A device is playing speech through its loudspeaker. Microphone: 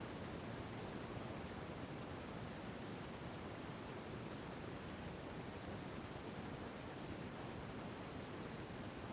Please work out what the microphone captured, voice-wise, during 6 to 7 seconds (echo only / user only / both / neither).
neither